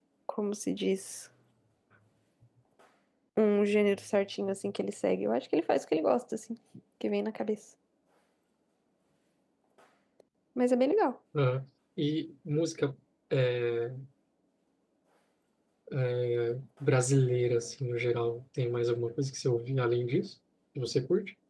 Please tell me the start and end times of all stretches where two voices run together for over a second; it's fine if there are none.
none

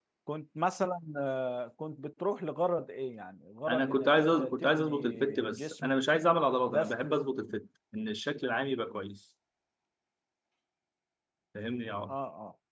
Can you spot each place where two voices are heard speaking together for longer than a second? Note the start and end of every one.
3.7-5.9

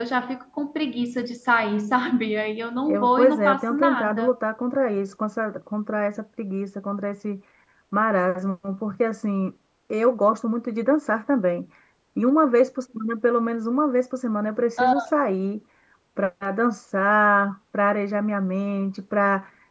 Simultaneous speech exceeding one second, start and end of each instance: 2.9-4.3

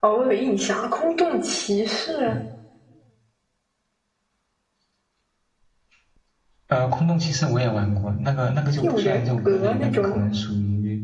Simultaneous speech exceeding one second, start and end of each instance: 8.8-10.2

